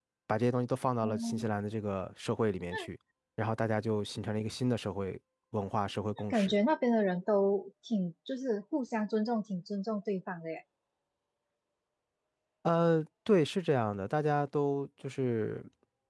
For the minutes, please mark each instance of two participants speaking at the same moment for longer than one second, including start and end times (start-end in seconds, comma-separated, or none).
none